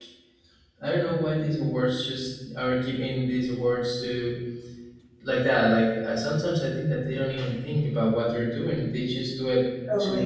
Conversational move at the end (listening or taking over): listening